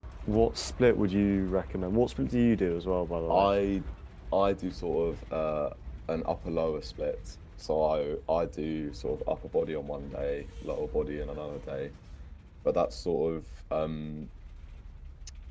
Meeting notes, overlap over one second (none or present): none